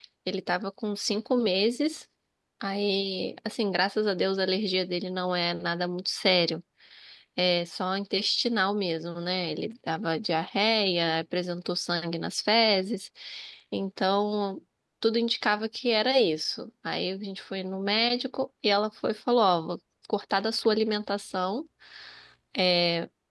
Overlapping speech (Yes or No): No